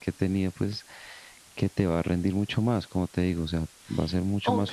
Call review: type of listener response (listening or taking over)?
taking over